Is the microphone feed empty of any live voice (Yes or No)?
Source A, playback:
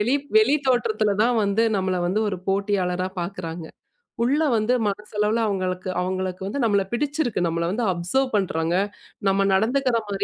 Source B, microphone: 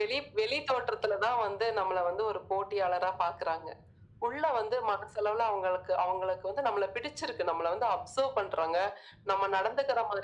Yes